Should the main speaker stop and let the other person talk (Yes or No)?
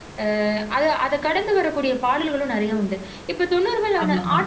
No